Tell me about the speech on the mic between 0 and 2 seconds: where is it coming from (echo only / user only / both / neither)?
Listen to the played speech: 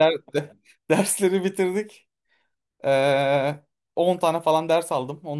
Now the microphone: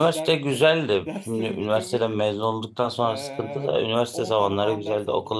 both